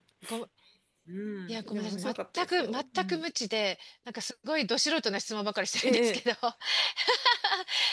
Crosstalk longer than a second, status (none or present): present